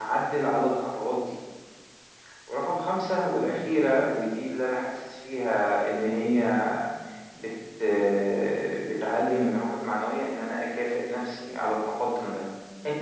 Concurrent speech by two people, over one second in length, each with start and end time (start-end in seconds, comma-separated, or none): none